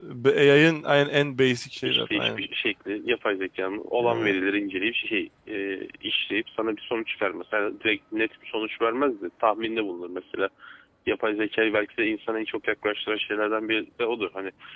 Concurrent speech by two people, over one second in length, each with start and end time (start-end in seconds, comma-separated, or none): none